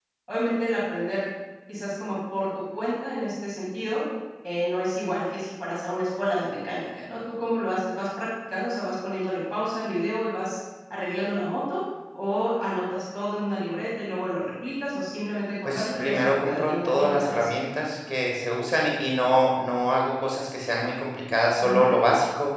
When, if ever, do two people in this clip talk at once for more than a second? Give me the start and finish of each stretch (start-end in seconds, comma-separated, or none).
15.7-17.5